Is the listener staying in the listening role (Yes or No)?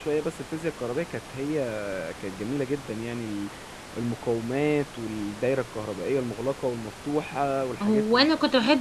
No